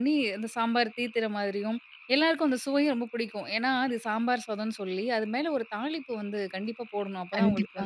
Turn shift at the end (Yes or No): No